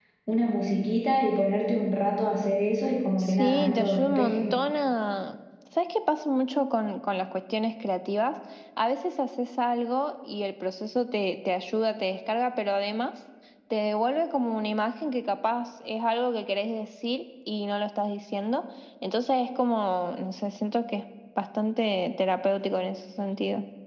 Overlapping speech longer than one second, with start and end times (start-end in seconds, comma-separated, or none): 3.2-4.5